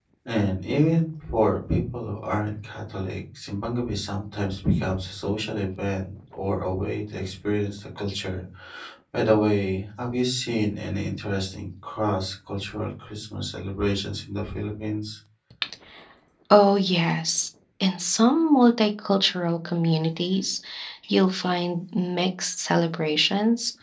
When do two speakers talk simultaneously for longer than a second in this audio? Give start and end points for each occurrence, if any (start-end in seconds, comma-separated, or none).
none